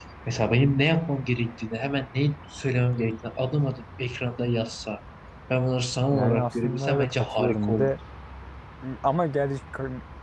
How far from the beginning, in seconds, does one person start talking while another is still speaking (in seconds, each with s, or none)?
6.1 s